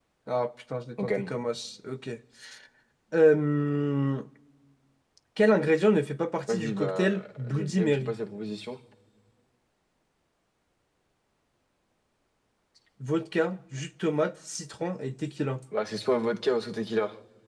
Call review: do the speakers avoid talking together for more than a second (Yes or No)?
No